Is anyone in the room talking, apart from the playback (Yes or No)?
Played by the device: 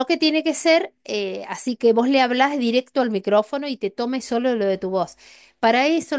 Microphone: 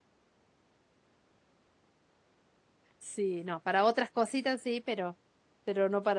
Yes